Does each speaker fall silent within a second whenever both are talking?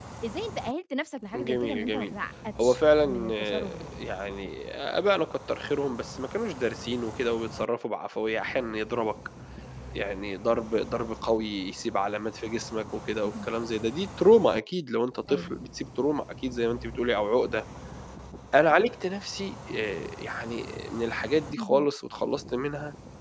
No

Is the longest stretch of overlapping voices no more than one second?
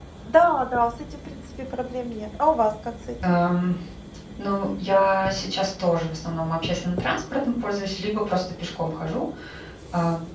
Yes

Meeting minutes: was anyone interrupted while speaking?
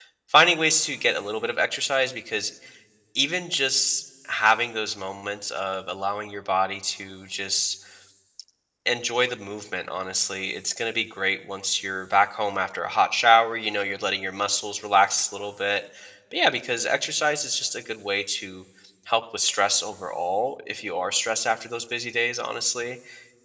No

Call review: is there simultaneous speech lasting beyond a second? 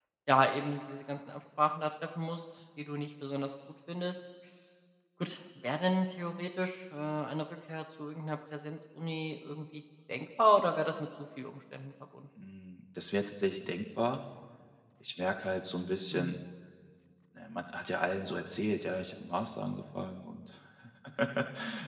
No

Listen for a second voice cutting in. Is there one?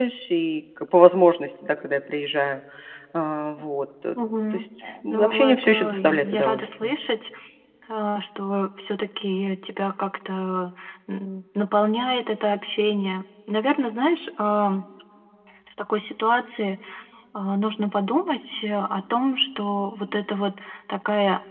Yes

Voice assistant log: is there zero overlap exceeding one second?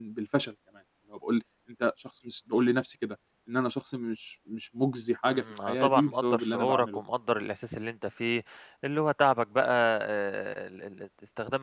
No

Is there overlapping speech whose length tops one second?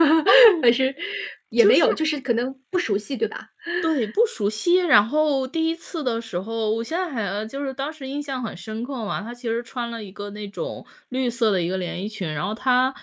No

